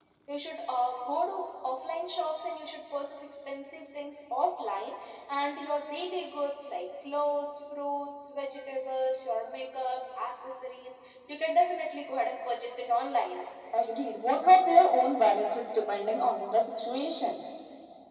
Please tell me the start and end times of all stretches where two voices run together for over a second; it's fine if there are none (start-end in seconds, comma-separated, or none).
none